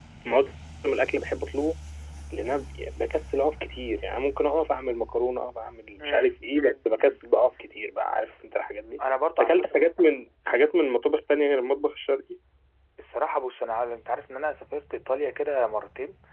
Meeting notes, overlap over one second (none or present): none